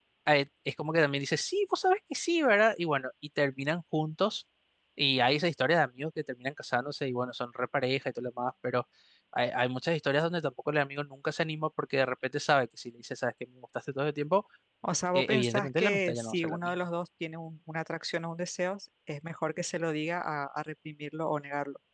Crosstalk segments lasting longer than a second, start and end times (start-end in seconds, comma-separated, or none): 15.1-16.7